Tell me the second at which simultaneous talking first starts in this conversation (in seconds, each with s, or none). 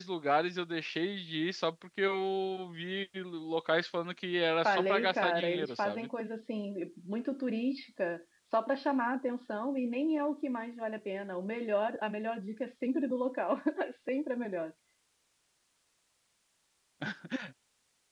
4.7 s